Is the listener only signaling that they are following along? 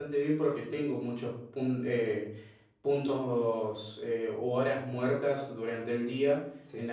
Yes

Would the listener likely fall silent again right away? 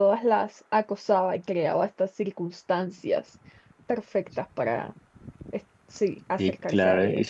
No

